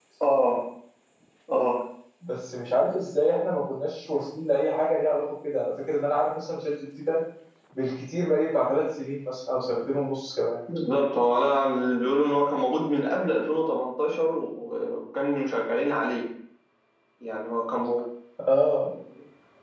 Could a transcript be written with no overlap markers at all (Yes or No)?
Yes